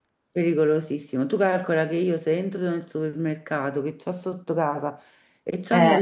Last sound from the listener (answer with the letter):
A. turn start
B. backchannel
B